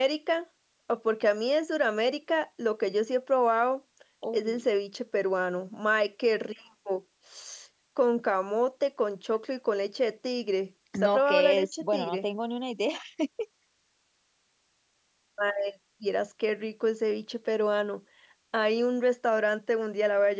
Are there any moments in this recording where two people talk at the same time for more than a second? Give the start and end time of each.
11.0-12.2

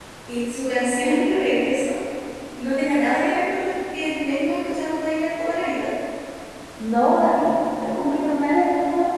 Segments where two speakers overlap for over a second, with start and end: none

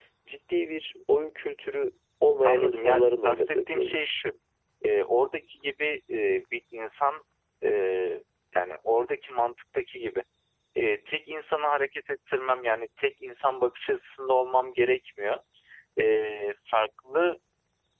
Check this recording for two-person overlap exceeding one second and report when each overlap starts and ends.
2.5-3.9

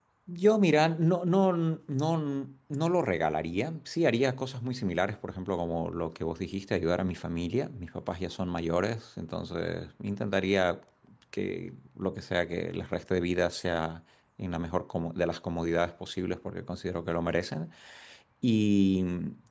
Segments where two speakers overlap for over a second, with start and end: none

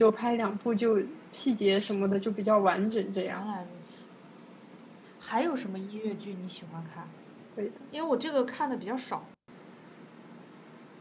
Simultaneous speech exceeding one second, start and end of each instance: none

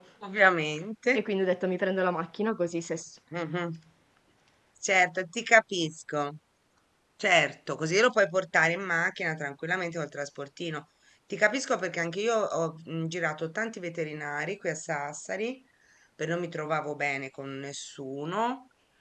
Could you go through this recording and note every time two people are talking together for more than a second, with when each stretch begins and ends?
none

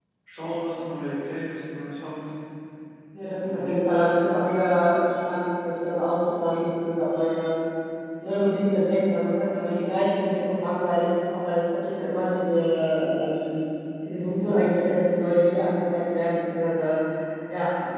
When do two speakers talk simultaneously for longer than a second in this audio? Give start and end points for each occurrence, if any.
none

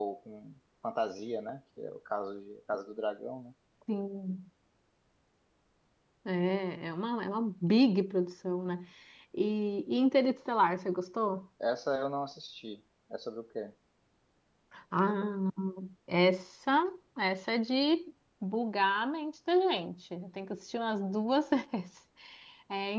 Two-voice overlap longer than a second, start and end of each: none

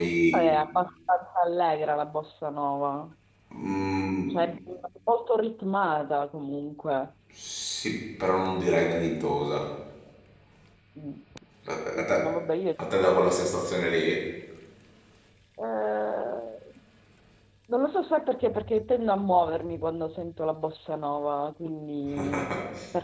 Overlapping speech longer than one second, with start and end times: none

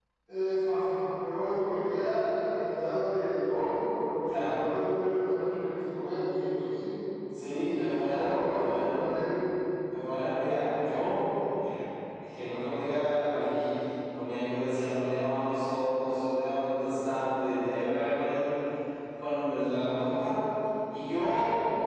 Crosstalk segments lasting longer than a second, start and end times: 7.5-8.9

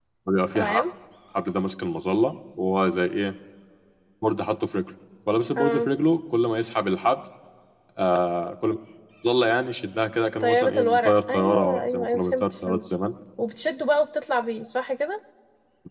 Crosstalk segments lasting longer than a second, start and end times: 10.4-12.8

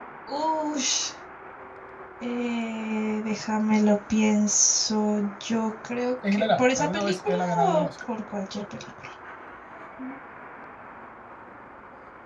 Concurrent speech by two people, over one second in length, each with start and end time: 6.3-7.9

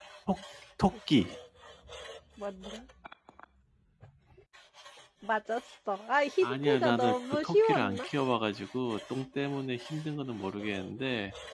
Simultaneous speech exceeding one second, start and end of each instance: 6.4-8.1

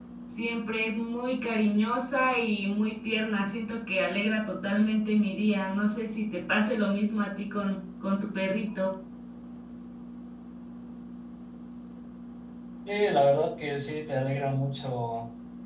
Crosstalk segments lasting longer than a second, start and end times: none

